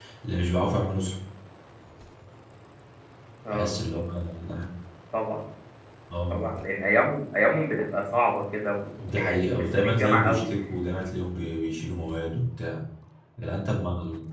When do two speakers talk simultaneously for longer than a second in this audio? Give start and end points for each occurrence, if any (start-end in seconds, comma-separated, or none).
9.0-10.5